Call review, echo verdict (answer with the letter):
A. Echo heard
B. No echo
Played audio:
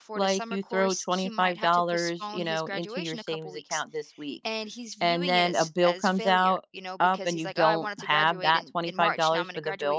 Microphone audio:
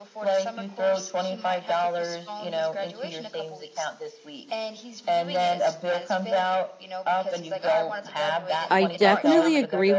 A